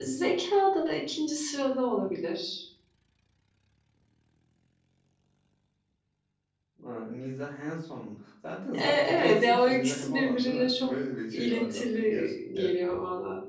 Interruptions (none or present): present